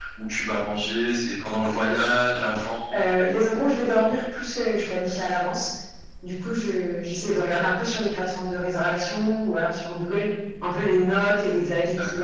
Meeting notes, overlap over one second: none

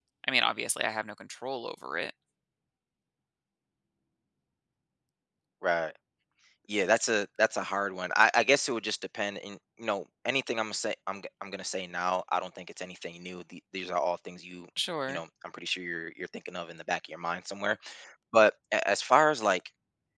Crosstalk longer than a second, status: none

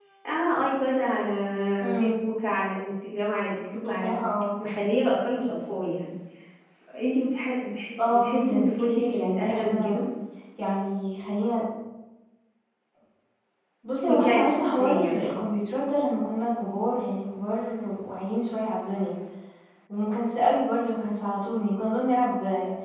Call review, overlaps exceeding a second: present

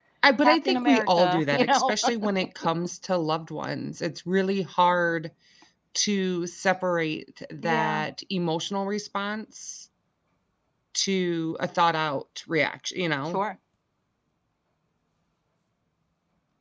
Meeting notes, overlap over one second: present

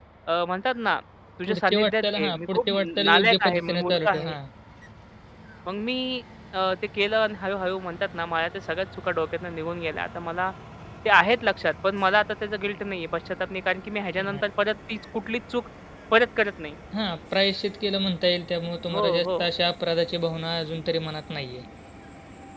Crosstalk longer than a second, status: present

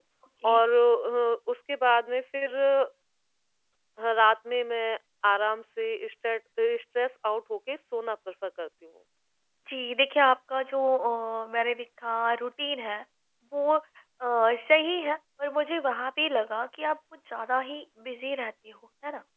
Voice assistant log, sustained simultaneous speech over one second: none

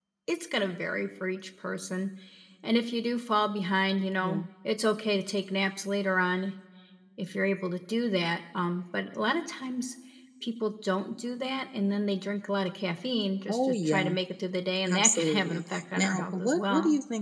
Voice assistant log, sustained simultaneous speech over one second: present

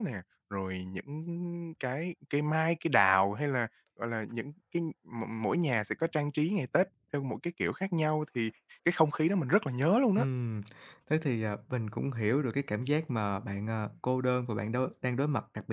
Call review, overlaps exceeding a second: none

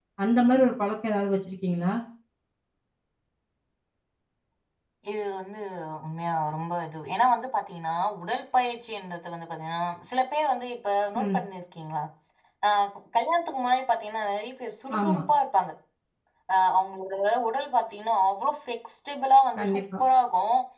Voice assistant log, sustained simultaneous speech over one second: none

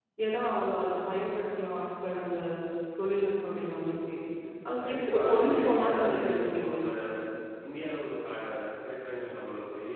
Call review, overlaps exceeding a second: present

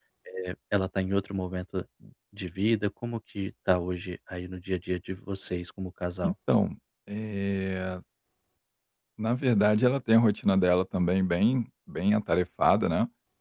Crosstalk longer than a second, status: none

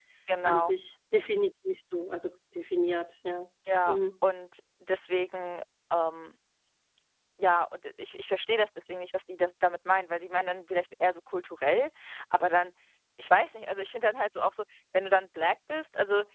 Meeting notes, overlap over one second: none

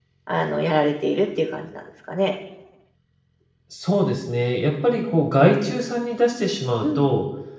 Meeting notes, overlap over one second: none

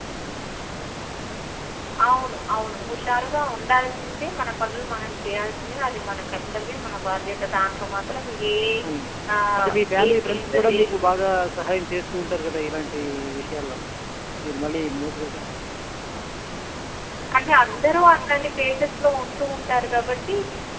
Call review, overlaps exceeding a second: present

